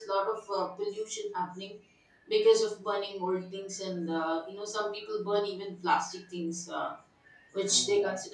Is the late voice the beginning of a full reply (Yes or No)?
No